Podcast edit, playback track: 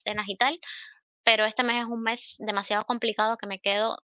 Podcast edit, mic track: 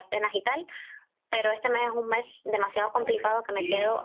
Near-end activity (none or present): present